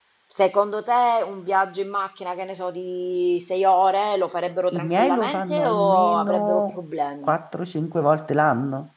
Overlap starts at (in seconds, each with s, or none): 4.7 s